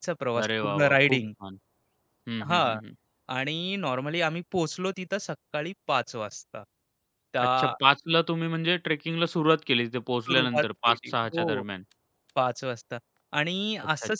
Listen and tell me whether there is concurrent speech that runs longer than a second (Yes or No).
Yes